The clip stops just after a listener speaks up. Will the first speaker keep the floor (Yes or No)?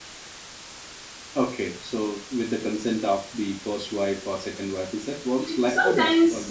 No